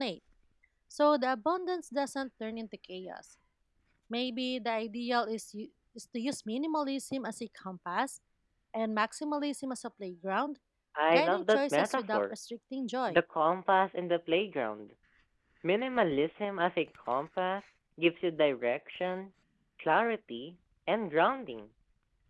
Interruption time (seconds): 11.1 s

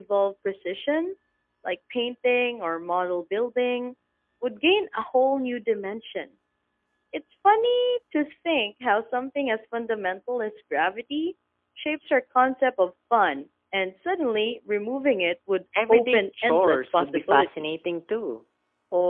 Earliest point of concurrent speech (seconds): 15.7 s

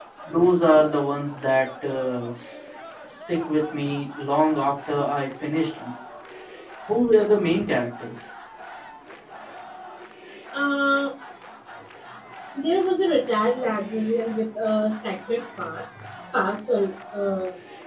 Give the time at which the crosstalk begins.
none

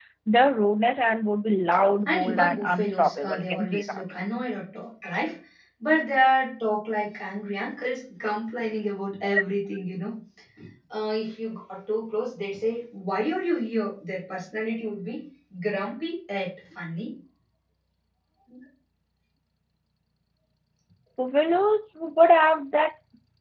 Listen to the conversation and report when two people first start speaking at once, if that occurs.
2.0 s

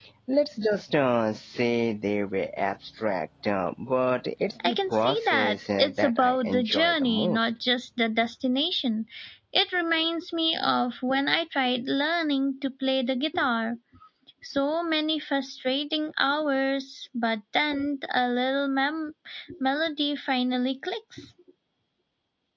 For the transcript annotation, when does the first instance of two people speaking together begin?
4.6 s

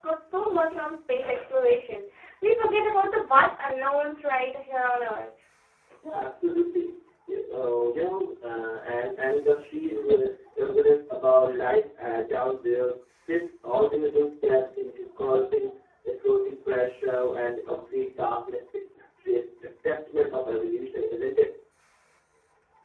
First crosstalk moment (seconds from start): none

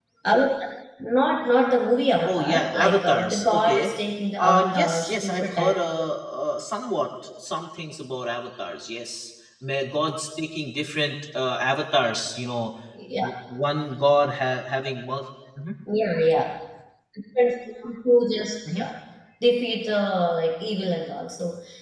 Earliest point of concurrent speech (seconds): 2.2 s

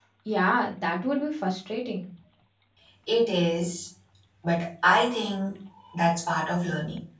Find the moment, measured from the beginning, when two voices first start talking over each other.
none

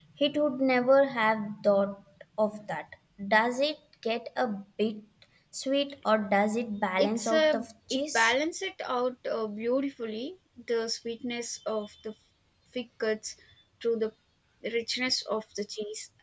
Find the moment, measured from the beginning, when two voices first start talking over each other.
7.0 s

